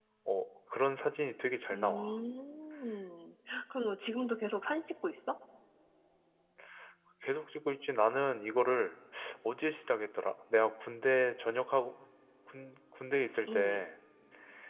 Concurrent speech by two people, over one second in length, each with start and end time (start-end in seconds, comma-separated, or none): none